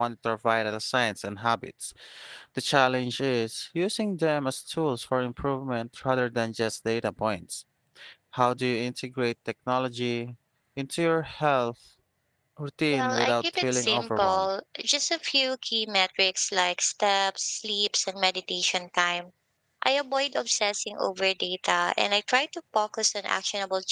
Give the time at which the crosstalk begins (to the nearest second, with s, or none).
13 s